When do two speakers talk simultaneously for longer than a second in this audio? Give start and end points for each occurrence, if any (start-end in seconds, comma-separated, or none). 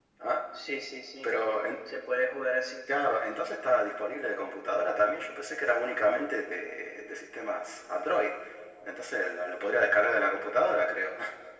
none